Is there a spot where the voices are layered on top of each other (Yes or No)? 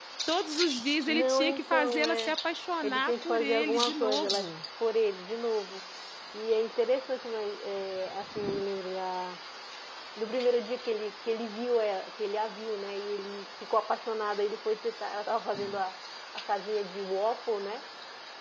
Yes